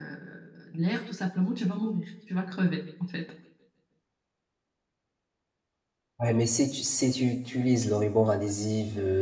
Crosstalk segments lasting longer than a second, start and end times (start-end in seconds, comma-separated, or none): none